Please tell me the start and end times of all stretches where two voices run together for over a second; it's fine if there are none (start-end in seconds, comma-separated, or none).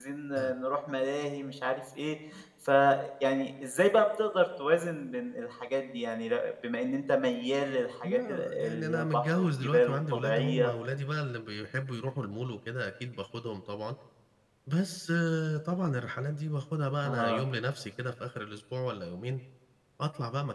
8.0-10.7